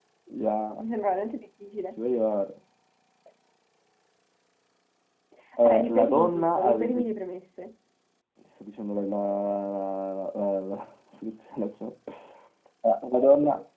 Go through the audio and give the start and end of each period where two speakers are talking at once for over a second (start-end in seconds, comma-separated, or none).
5.6-7.0